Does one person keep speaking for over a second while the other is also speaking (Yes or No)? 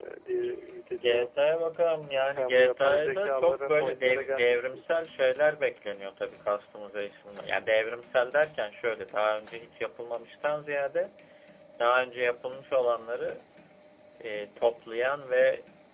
Yes